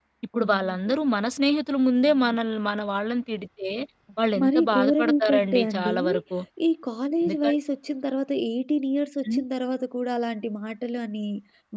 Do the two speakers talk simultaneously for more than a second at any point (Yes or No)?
Yes